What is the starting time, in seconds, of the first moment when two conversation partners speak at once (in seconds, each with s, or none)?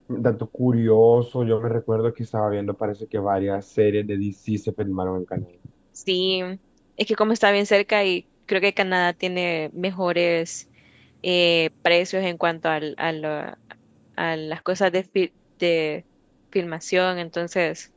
none